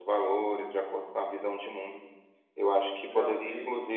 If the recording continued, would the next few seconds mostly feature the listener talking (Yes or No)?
No